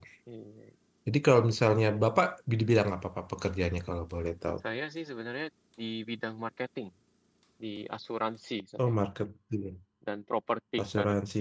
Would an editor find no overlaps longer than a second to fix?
Yes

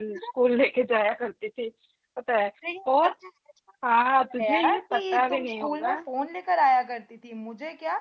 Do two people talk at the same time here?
Yes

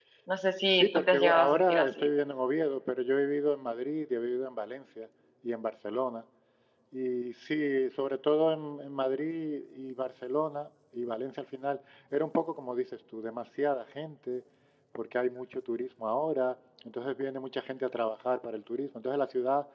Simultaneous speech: Yes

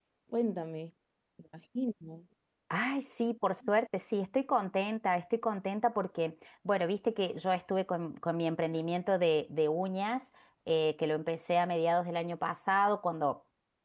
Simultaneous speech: No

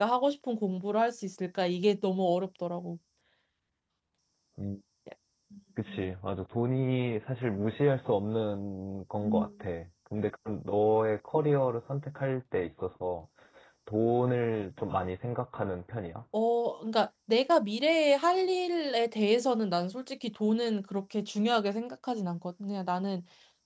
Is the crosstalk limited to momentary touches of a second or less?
Yes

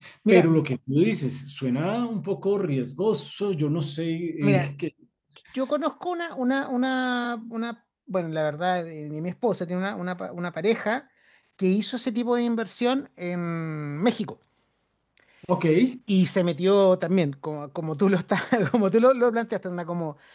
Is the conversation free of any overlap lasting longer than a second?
Yes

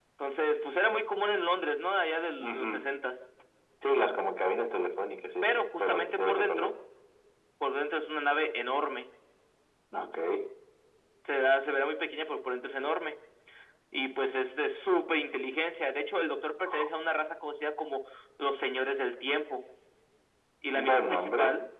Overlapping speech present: Yes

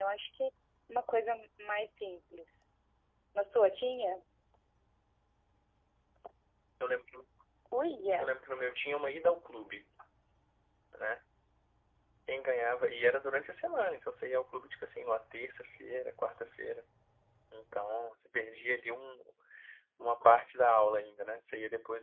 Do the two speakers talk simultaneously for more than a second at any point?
No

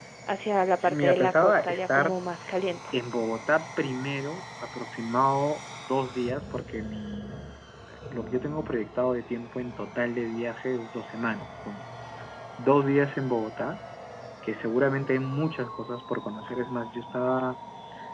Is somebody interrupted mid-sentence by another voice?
Yes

